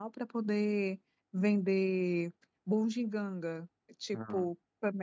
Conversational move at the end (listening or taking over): listening